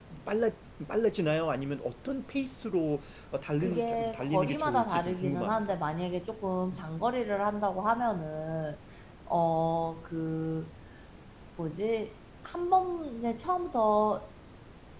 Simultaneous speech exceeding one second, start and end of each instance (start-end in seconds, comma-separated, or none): 3.6-5.8